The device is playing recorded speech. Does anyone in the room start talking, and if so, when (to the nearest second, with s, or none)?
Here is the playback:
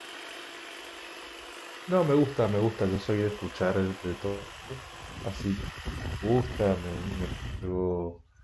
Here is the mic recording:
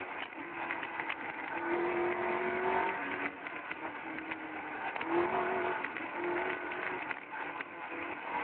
none